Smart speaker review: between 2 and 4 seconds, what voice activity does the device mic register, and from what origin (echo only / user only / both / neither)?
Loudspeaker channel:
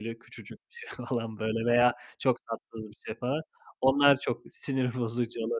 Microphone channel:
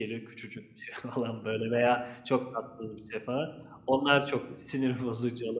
echo only